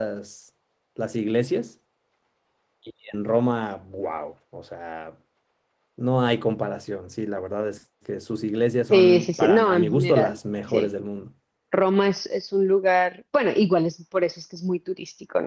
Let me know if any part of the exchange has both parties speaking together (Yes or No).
Yes